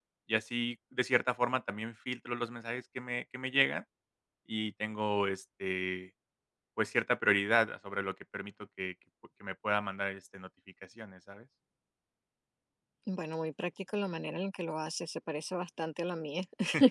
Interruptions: none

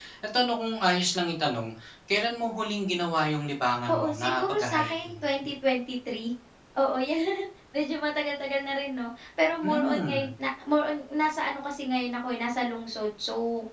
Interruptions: present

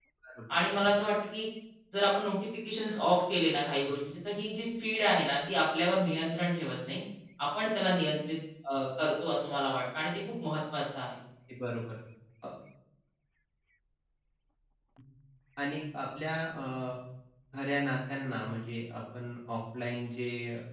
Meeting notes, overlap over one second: none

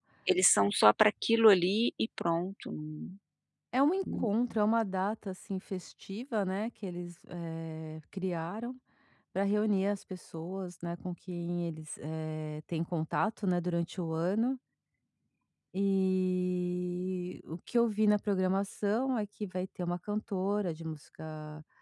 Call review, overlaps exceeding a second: none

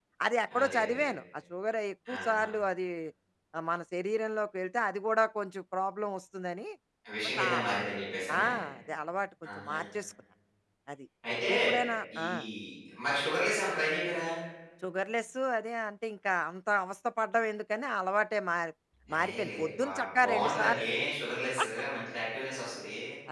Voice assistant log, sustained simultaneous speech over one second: present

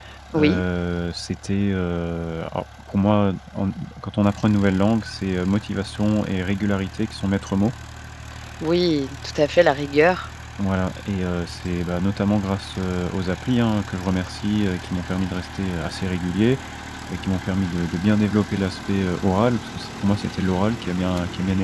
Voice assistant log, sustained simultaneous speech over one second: none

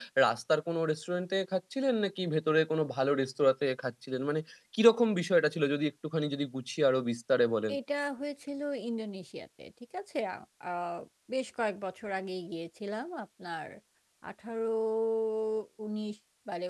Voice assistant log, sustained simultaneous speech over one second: none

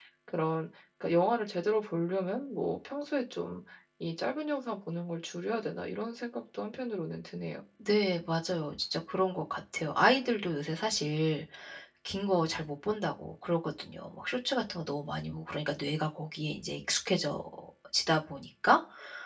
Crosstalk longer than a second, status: none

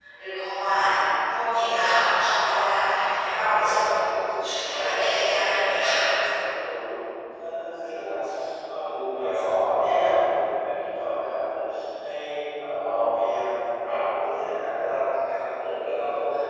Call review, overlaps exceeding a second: present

